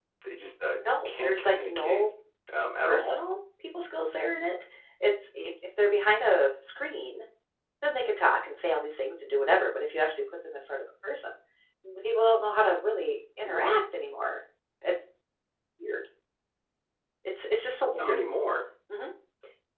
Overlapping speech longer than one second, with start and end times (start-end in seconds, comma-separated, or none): 0.8-2.1